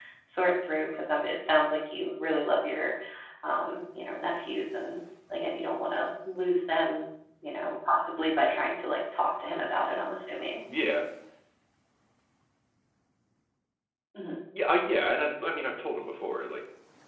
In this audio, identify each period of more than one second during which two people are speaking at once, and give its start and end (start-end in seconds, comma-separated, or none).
none